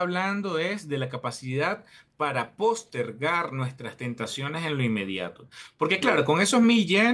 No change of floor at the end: Yes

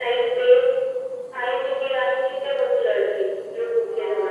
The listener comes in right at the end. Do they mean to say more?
Yes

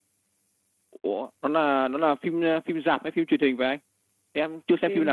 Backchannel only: No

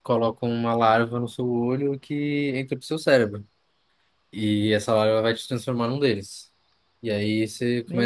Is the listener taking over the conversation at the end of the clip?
No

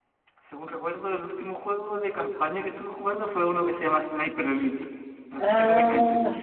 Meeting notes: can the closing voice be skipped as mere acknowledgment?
No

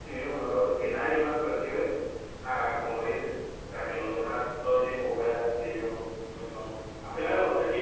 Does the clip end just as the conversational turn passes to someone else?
Yes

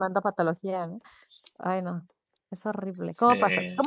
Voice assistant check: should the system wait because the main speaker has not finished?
Yes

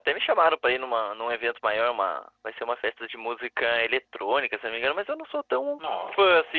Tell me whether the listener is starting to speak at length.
No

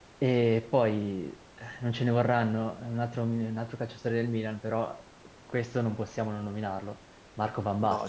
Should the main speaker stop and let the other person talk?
Yes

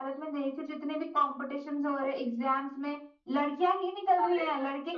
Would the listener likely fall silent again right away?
No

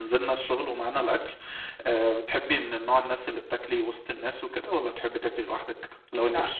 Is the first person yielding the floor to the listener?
Yes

